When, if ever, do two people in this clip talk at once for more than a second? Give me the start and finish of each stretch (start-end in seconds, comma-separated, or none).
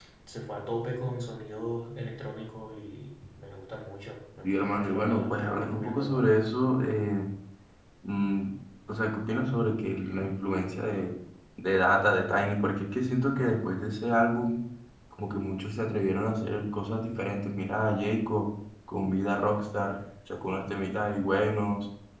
4.4-6.3